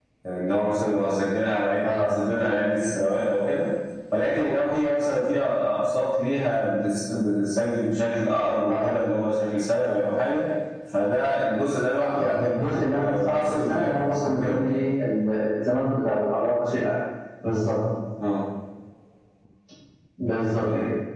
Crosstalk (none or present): present